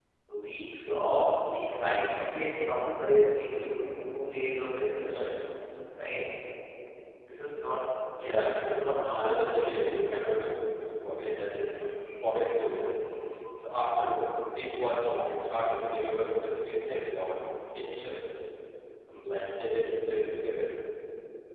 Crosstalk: present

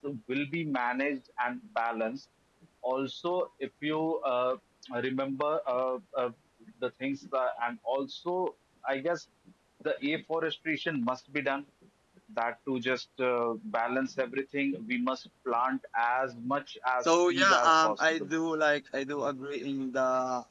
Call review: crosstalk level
present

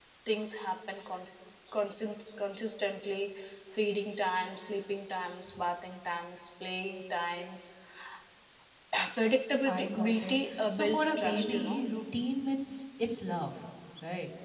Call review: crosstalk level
present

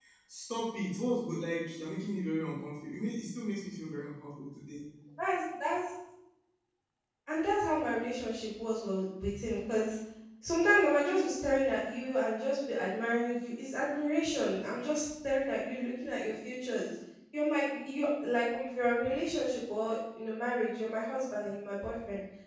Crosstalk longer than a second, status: none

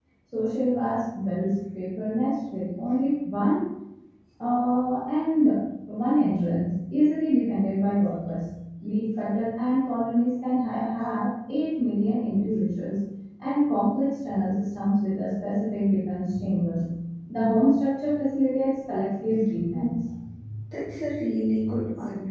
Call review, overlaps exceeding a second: none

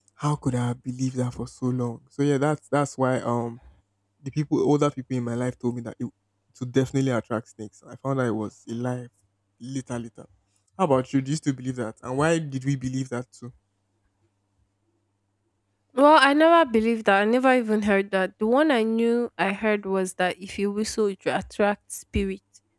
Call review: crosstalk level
none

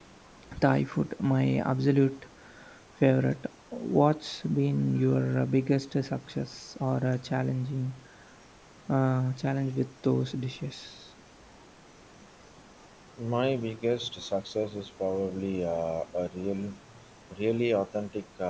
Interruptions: none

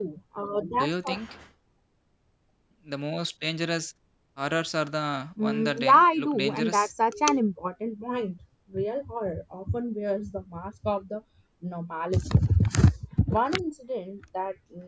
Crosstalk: present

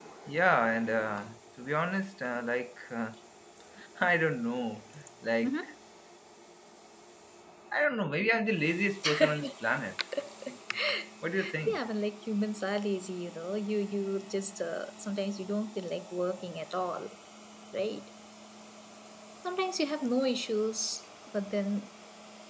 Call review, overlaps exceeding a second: none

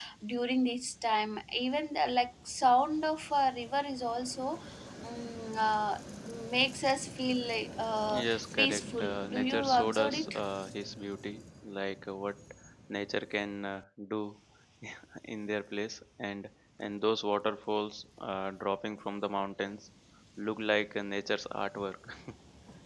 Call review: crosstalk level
present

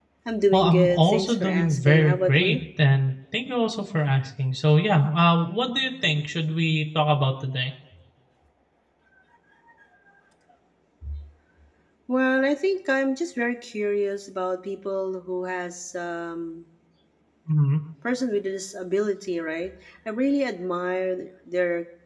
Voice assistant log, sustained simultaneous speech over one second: present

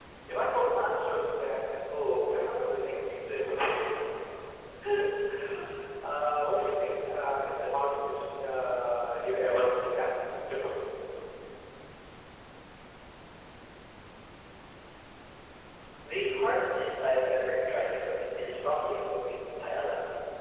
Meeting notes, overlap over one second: none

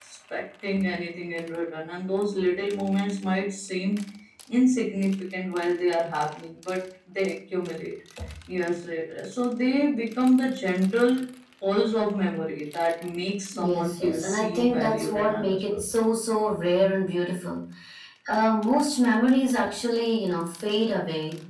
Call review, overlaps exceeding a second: present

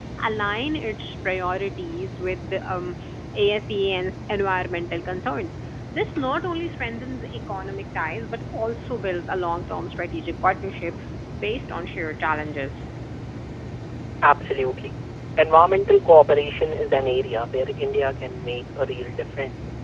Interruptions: none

